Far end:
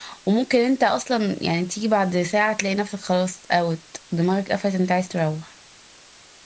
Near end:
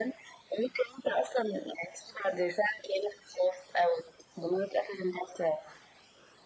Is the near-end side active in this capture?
No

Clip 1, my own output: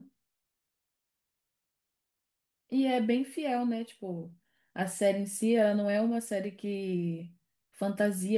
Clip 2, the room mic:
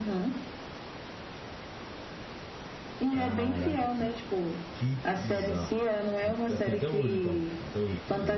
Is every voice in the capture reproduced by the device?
No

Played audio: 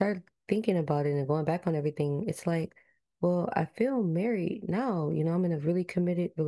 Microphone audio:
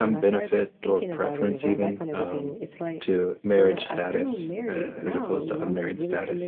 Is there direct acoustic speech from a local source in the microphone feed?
Yes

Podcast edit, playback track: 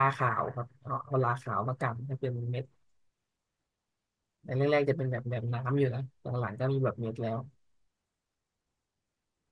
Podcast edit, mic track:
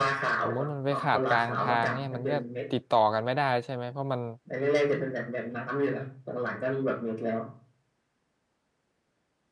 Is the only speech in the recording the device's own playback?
No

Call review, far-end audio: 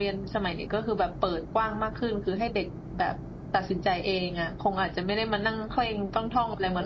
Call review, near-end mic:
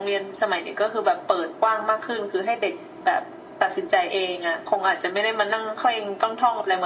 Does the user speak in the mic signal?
No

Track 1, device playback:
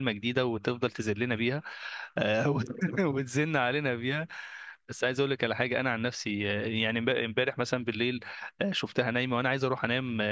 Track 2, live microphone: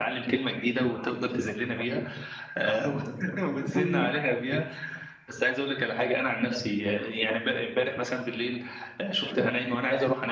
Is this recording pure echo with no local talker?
No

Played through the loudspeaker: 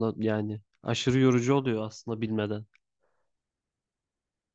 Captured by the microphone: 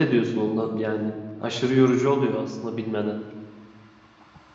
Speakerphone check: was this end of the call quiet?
Yes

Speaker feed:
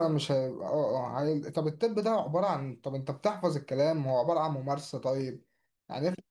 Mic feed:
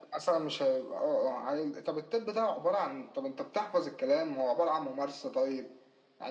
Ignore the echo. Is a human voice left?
No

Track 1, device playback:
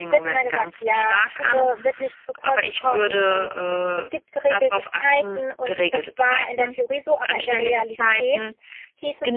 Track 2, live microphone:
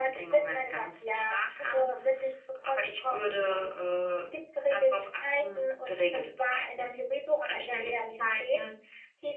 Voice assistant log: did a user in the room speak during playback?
No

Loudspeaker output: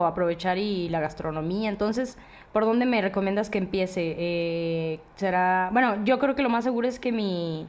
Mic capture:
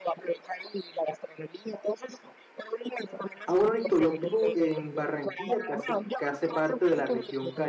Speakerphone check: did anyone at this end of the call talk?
Yes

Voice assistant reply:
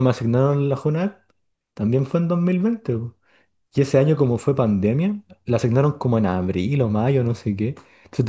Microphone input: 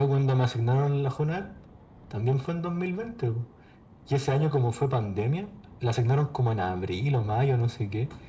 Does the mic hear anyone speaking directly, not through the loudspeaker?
No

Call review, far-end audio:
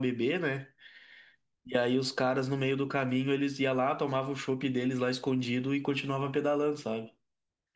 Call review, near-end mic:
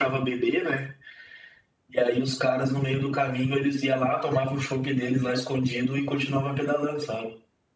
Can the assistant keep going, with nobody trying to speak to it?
Yes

